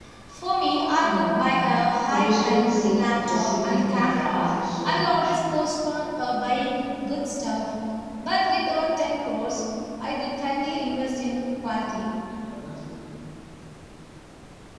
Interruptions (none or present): present